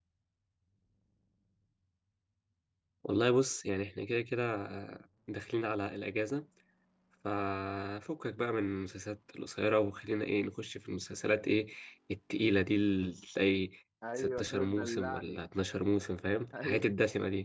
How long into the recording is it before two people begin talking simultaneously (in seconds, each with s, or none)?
14.2 s